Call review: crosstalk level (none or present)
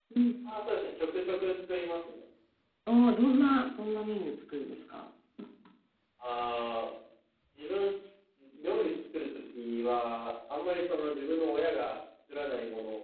none